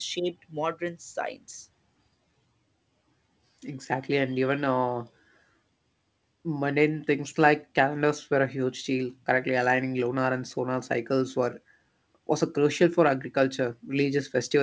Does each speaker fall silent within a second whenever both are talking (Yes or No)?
Yes